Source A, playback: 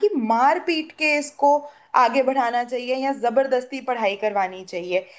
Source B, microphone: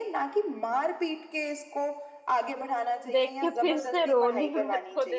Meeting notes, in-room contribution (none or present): present